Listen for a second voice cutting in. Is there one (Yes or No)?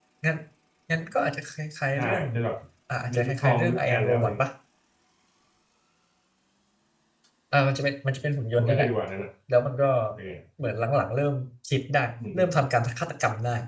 Yes